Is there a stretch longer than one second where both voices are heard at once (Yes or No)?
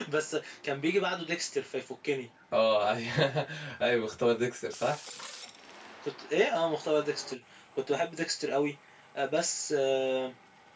No